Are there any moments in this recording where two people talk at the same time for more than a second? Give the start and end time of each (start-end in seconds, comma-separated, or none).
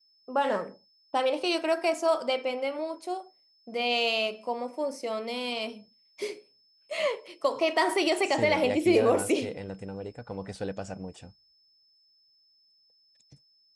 8.2-9.5